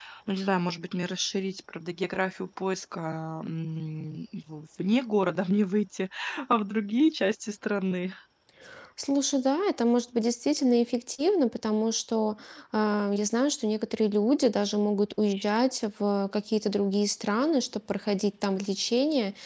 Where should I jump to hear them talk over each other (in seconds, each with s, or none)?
none